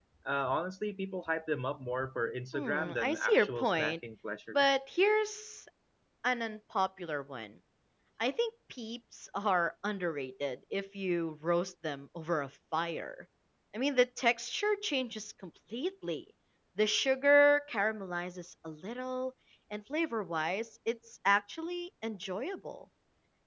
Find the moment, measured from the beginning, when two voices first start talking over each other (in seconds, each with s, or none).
2.5 s